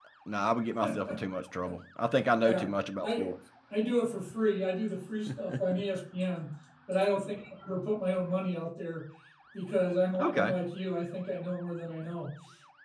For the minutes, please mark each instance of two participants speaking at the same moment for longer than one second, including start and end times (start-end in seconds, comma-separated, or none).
none